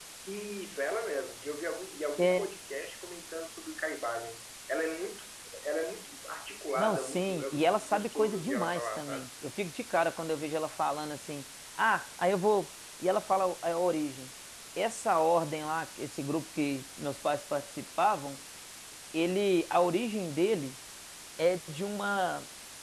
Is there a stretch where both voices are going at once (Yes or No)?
Yes